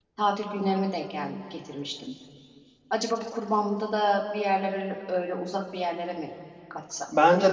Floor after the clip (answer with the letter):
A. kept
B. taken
B